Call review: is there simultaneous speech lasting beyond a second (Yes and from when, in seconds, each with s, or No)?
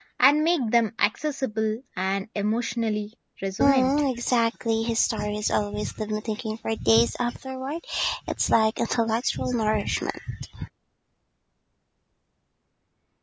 No